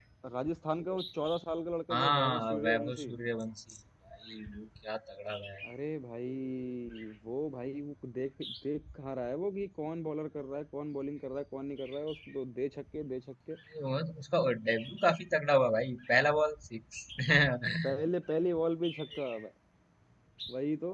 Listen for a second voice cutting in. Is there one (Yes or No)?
Yes